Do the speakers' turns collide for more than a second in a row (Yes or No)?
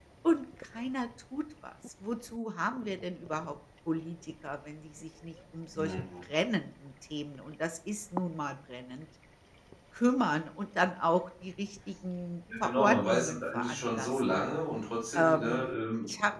Yes